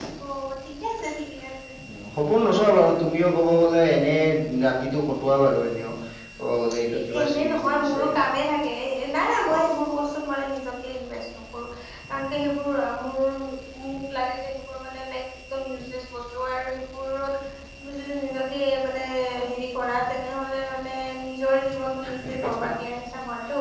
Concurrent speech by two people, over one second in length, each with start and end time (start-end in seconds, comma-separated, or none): 6.9-8.3